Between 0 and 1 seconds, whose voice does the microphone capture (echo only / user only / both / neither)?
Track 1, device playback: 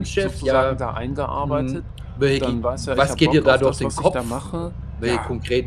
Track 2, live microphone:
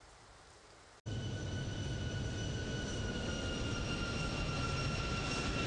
neither